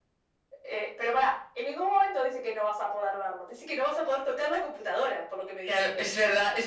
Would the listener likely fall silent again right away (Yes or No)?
No